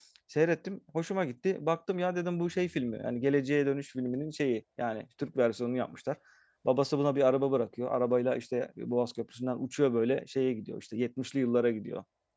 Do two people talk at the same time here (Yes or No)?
No